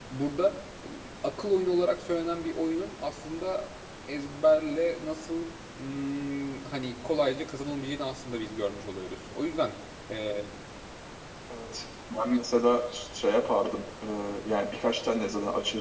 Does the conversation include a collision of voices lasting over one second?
No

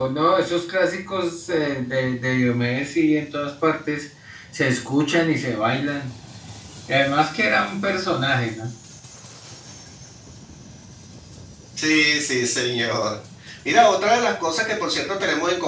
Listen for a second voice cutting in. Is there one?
No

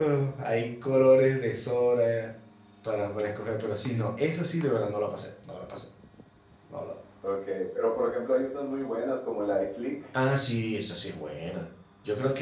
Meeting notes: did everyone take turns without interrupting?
Yes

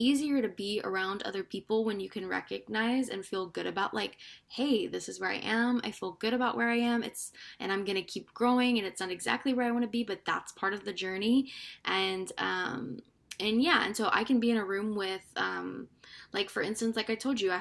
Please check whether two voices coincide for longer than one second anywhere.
No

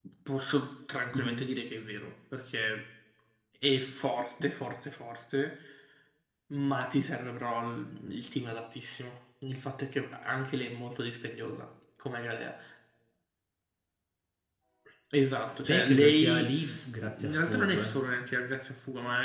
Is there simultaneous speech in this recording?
Yes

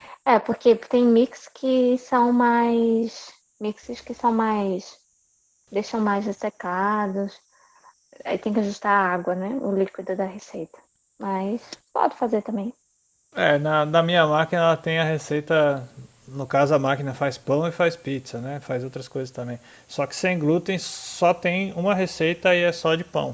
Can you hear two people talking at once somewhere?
No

